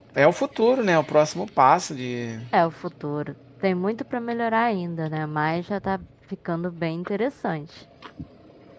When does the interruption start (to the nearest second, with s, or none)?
none